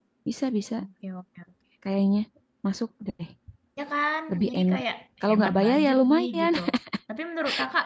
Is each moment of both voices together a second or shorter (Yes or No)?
No